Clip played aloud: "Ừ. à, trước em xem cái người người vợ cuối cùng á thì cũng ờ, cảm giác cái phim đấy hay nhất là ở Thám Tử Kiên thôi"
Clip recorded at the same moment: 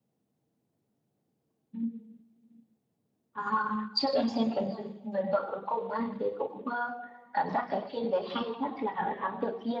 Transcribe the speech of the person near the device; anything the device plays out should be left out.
none

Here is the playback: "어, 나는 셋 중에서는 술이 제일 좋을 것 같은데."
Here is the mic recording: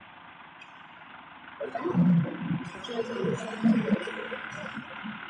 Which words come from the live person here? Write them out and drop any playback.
none

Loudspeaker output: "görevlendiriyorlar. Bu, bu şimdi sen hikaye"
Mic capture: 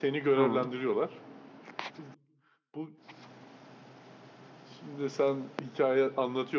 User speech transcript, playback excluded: Tamam.

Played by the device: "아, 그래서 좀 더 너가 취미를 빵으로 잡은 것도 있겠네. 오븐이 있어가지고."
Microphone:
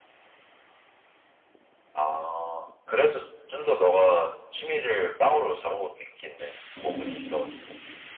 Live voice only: 응 응 응

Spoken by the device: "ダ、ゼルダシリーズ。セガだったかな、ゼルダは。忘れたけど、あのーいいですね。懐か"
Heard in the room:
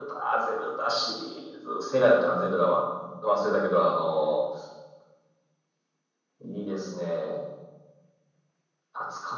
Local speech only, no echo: none

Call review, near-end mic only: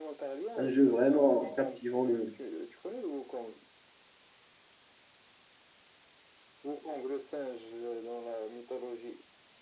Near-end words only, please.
un jeu vraiment captivant. le-

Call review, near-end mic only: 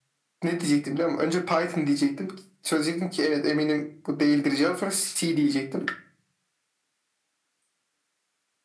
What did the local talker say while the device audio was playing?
none

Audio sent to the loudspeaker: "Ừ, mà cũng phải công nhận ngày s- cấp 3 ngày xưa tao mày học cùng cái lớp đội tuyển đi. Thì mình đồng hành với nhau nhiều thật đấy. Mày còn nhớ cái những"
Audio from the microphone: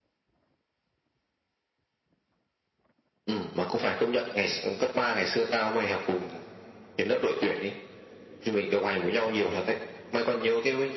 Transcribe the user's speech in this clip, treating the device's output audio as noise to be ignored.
none

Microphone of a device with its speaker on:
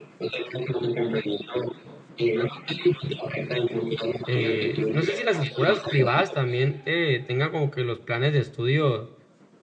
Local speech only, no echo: eh, no sé si las escuelas privadas también eh, tengan como que los planes de estudio

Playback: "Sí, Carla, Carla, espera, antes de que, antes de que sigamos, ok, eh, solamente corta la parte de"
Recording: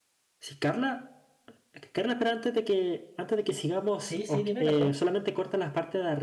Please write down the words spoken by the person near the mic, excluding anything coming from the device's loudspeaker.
Sí, sí, dime, perdón.

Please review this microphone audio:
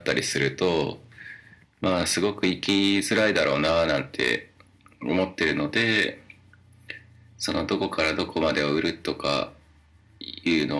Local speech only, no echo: none

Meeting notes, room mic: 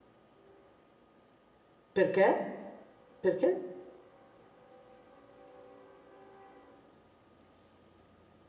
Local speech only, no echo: Perché? Perché?

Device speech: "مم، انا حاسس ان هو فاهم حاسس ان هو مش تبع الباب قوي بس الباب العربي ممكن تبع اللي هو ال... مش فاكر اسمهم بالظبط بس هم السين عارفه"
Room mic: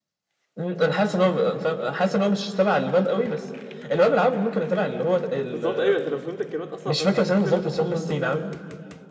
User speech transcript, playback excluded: بالظبط ايوه انت لو فهمت الكلمات اصلا فاهم هتخاف ان انت تحطها انت بتعمل ايه

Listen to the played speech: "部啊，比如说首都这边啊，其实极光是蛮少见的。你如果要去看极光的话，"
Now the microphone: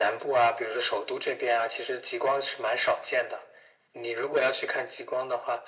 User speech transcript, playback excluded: none

